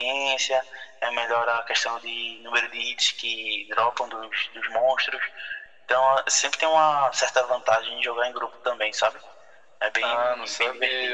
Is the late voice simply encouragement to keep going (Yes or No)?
No